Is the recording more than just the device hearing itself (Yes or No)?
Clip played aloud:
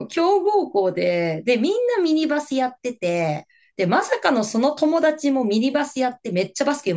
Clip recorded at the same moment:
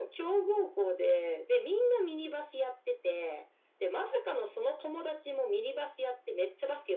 No